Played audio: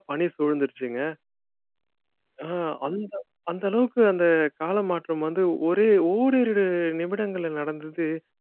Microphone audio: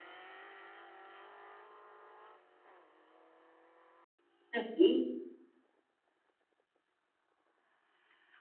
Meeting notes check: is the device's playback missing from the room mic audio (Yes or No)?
Yes